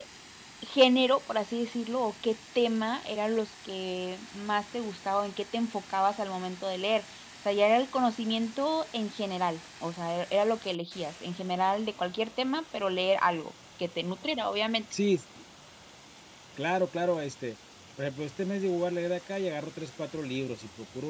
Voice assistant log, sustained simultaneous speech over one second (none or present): none